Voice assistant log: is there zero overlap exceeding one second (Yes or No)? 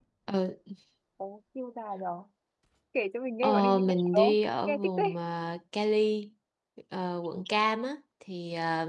No